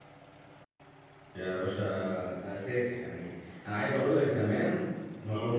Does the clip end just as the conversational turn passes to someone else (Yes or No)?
No